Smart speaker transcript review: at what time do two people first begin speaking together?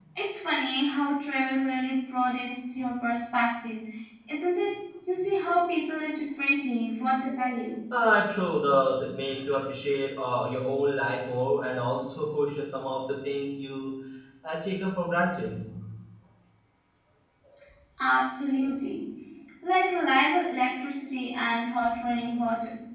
none

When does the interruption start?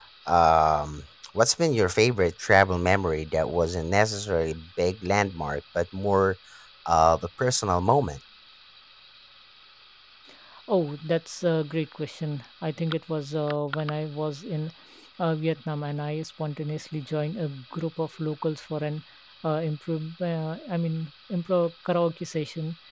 none

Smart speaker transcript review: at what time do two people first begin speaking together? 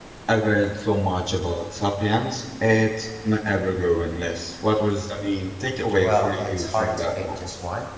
5.9 s

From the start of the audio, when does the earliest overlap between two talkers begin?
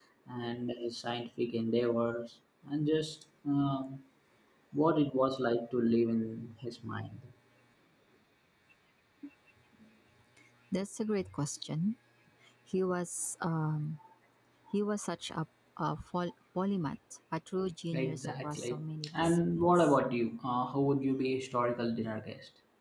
17.9 s

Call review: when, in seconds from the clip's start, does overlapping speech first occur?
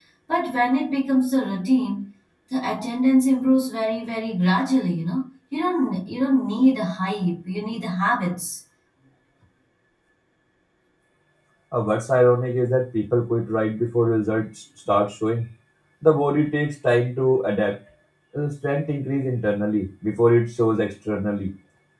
none

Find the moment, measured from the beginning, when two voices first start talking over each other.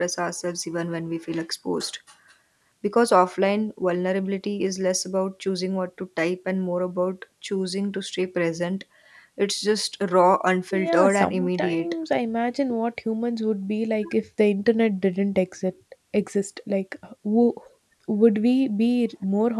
10.7 s

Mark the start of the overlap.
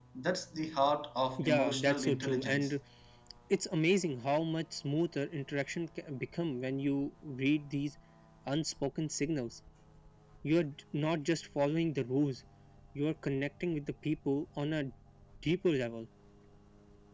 1.4 s

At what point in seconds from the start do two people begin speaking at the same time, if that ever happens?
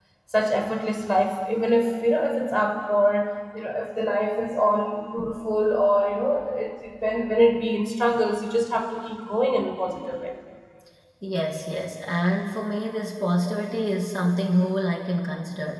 none

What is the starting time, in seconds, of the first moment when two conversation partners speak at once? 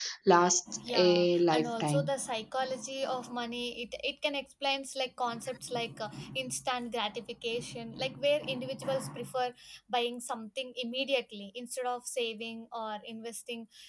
0.9 s

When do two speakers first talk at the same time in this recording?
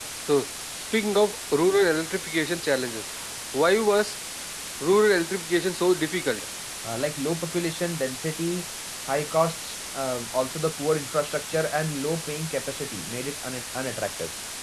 none

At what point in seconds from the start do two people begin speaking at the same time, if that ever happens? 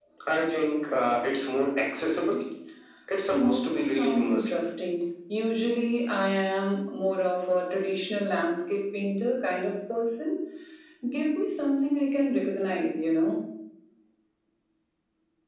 3.3 s

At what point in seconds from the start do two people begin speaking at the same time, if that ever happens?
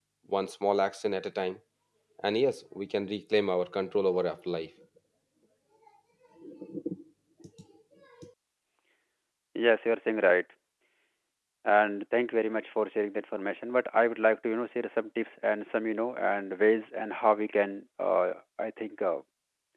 none

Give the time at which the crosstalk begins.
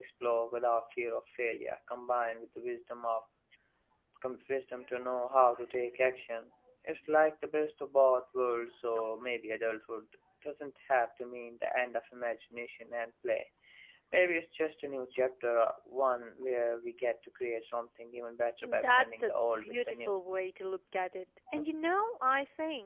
18.6 s

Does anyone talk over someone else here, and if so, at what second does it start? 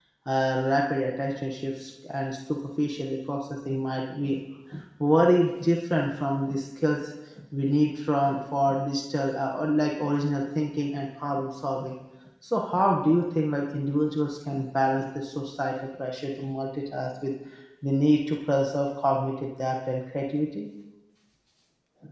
none

